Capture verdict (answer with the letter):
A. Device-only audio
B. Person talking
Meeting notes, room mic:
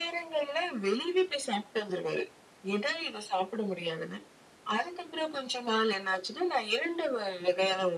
A